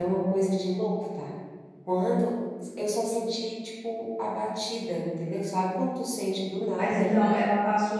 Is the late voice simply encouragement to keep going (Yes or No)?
No